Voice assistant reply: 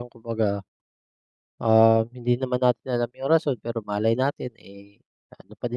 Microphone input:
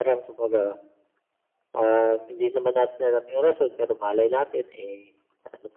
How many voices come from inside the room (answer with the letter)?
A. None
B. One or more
A